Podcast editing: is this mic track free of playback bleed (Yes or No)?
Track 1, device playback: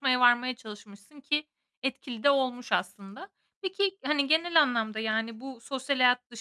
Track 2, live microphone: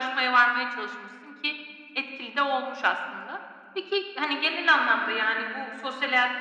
No